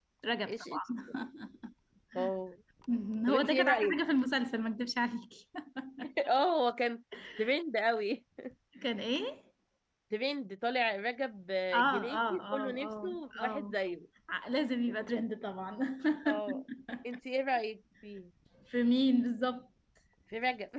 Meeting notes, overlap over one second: present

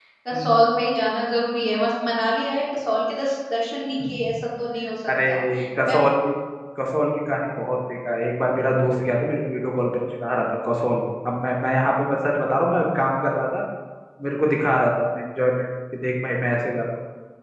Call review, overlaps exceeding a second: none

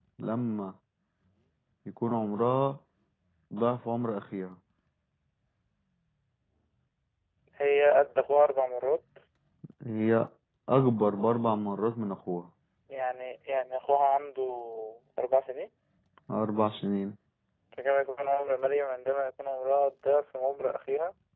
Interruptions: none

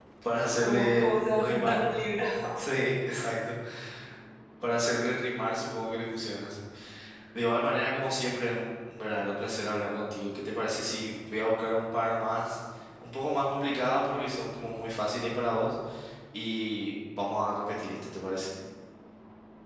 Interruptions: present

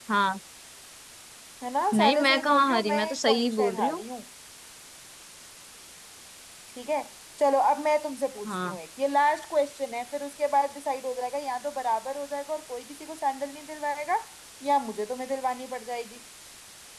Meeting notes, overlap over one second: present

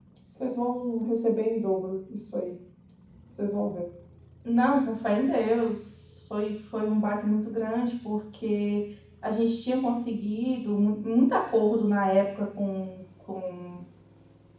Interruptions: none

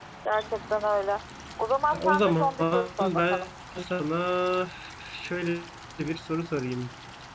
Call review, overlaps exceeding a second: present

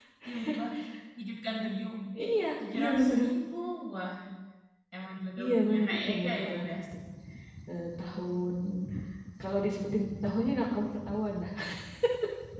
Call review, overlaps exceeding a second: present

